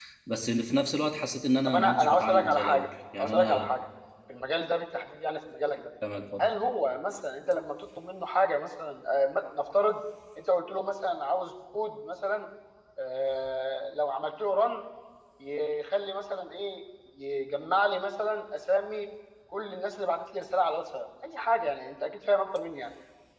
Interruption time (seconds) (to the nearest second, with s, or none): 2 s